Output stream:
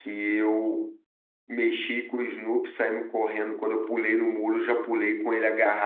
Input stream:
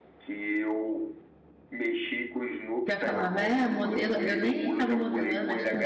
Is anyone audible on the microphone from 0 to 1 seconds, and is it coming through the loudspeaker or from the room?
echo only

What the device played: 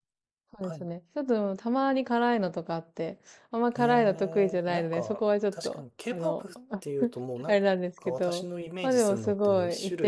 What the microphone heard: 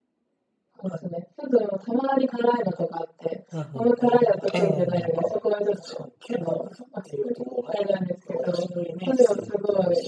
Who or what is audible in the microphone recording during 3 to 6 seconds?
both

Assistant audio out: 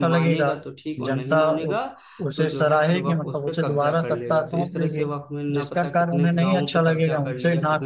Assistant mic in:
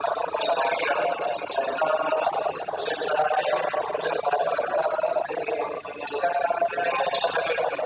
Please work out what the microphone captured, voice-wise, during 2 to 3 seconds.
echo only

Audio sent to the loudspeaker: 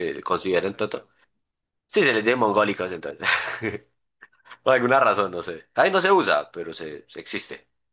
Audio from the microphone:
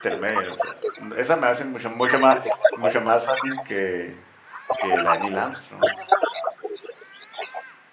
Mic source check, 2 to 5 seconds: both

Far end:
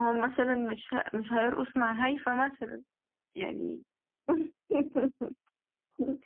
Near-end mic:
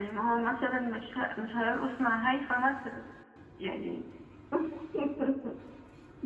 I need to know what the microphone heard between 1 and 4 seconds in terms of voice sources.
echo only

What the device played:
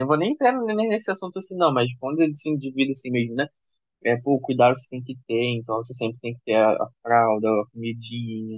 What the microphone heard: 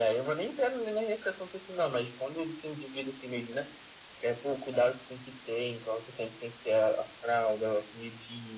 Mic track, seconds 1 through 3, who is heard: echo only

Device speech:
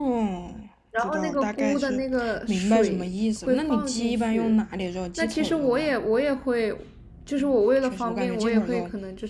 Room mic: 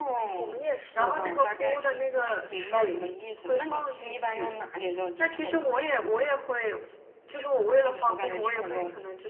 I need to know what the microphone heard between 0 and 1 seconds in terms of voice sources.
both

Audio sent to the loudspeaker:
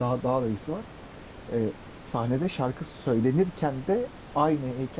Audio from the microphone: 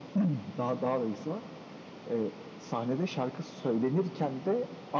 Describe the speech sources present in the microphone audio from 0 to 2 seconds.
echo only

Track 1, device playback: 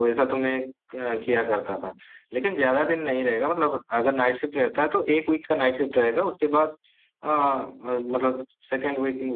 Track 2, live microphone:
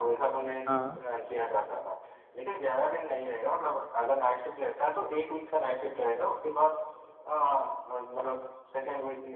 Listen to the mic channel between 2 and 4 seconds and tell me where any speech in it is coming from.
echo only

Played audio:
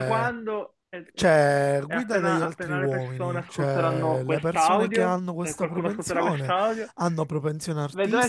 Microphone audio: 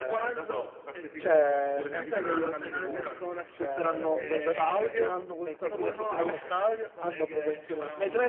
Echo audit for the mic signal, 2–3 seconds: both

